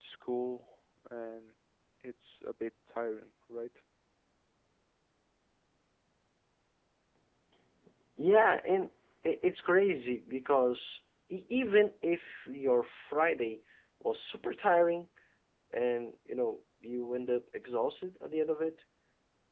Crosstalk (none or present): none